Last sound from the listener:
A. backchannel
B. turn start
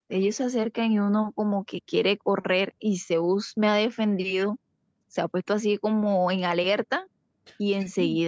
A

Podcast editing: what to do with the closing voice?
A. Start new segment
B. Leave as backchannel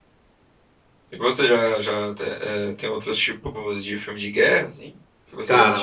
A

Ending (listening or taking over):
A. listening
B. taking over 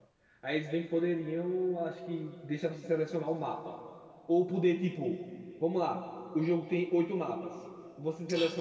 A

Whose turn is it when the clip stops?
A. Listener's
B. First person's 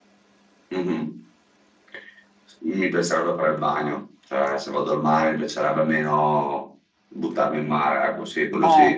A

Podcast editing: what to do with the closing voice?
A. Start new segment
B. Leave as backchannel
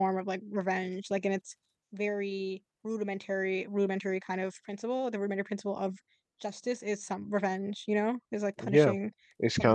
A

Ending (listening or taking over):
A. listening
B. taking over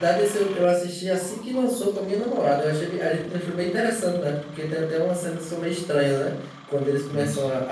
A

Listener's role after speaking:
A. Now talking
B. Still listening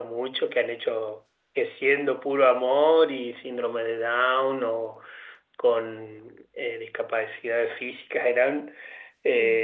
B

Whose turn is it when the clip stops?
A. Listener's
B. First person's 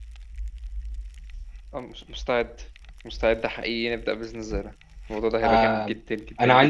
A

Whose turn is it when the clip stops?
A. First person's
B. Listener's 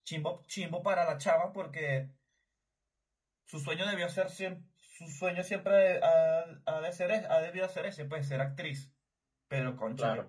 A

